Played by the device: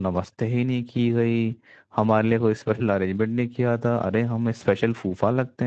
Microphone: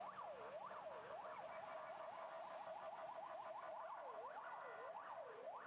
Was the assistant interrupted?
No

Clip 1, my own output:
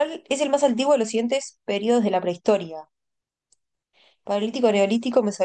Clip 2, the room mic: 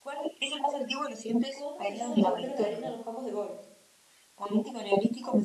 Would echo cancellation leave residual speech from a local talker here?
Yes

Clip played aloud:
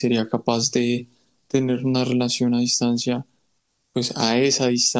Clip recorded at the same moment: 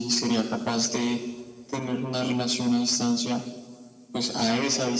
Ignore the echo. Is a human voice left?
No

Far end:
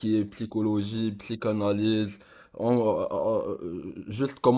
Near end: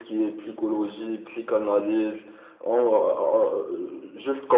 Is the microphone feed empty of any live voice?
Yes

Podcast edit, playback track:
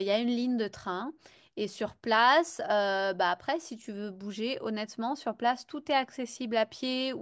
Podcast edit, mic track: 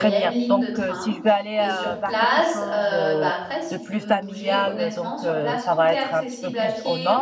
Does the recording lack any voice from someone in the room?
No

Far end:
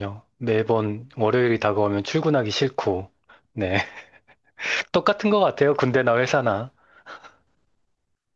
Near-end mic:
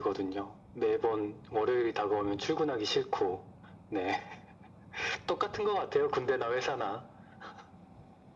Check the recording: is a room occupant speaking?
No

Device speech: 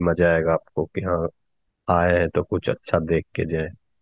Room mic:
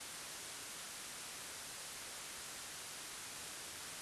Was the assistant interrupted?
No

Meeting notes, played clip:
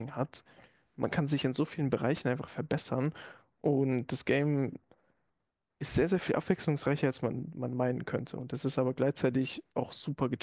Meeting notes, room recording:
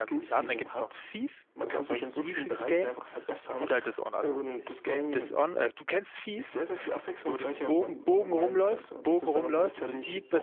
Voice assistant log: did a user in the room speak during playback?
Yes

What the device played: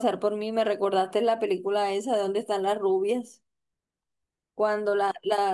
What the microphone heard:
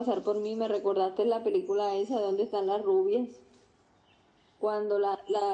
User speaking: No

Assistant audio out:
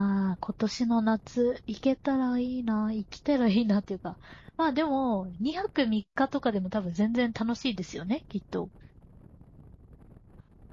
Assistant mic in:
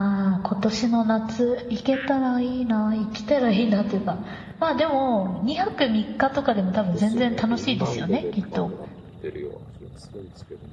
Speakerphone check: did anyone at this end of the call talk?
Yes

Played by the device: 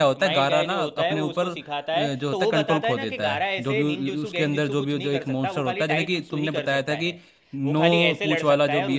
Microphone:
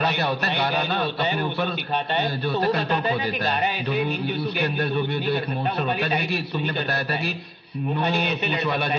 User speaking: No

